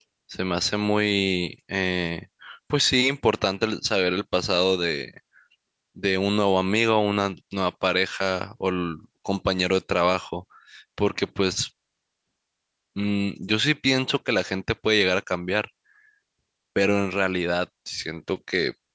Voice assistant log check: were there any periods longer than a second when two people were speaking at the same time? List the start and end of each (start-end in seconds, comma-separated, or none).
none